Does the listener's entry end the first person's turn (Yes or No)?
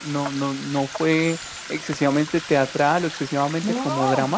No